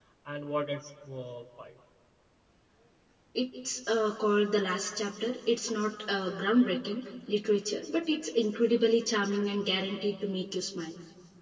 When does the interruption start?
none

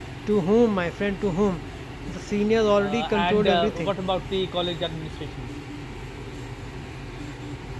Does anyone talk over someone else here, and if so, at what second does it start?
3 s

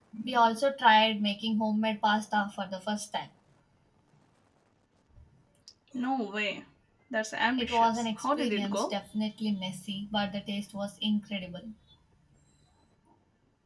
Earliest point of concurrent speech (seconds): 8 s

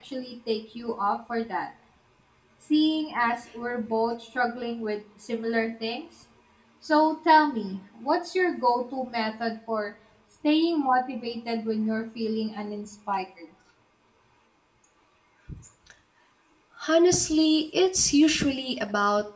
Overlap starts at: none

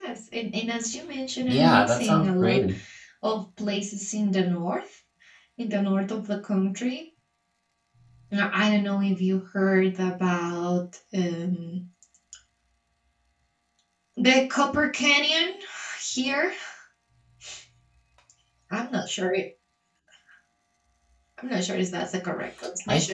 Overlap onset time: 1 s

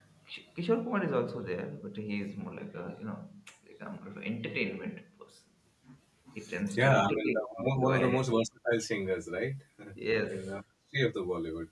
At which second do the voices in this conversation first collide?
7 s

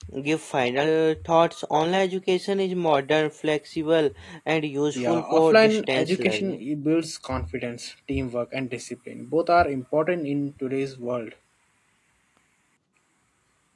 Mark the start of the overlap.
5 s

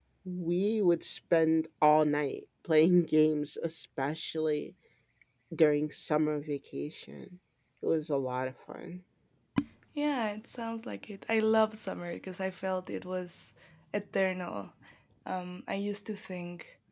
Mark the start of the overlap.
none

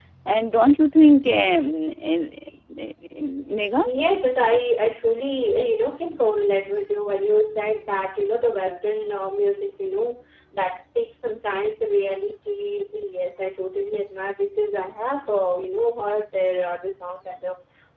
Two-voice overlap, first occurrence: none

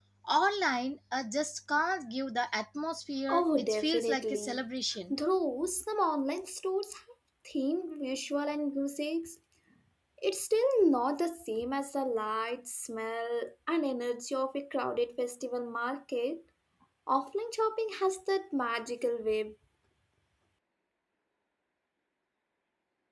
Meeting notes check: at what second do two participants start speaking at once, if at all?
3 s

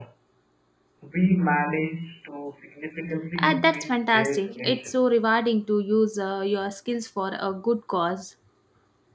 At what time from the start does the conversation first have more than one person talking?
3 s

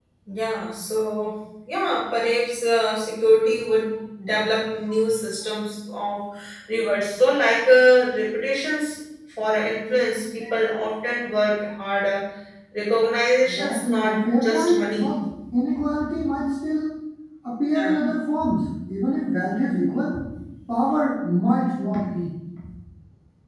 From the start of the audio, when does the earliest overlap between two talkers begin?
13 s

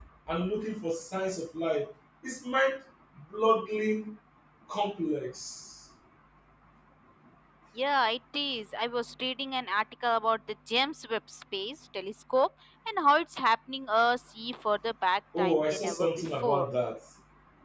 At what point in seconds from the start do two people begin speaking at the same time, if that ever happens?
15 s

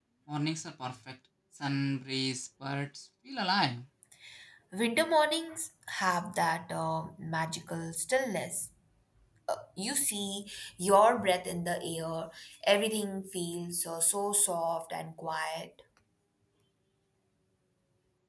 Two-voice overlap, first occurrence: none

